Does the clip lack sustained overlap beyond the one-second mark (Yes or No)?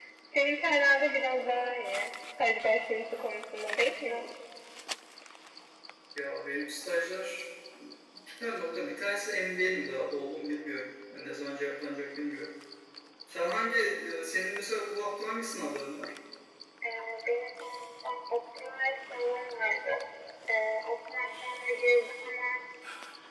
Yes